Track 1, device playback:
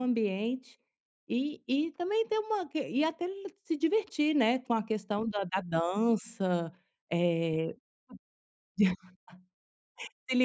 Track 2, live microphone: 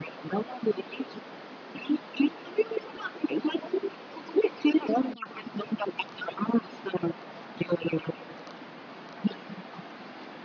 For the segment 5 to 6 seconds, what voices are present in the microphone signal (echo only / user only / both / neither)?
echo only